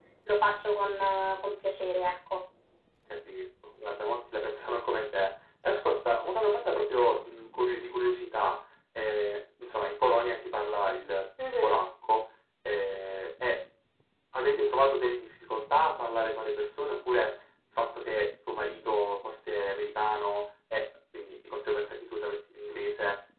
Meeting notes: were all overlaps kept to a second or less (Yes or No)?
Yes